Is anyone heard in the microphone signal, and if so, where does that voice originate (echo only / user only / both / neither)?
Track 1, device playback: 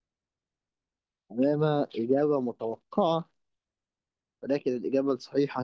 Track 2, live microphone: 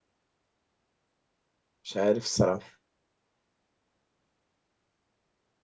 user only